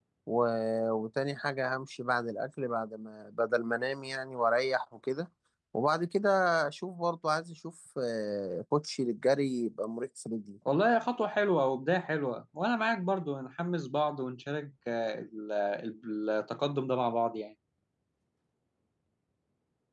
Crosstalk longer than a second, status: none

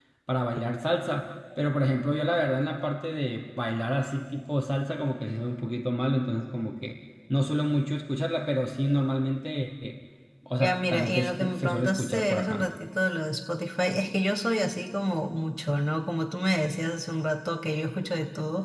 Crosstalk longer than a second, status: present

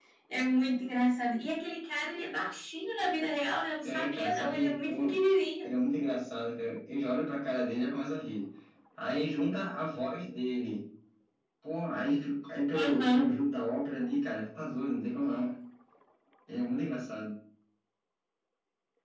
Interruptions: present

